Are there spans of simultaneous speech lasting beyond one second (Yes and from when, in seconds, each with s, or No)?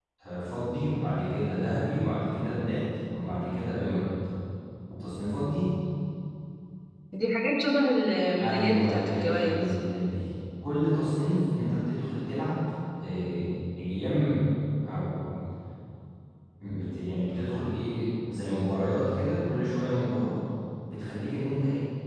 Yes, from 8.4 s